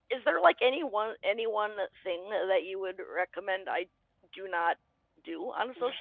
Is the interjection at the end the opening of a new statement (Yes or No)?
Yes